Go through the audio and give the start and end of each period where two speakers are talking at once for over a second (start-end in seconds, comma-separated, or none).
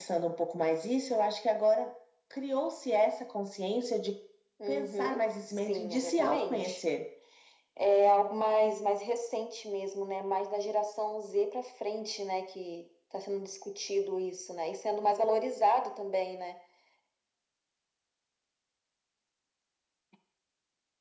4.7-6.8